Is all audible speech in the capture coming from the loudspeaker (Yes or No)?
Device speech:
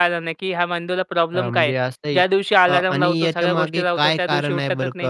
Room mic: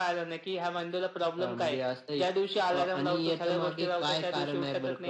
Yes